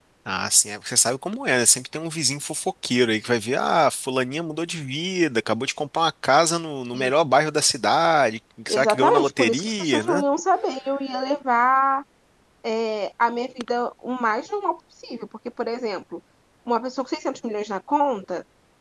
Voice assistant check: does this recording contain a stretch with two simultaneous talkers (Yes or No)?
Yes